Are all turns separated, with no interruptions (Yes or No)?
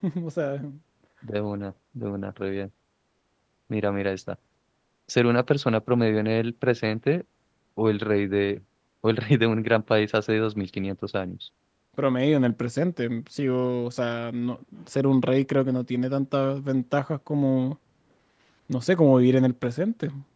Yes